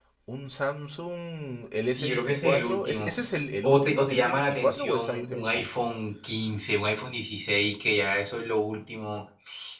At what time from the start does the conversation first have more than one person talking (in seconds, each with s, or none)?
1.9 s